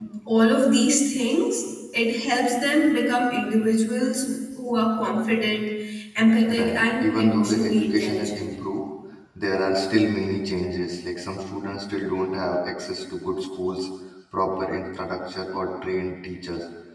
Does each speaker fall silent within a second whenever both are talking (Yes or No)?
No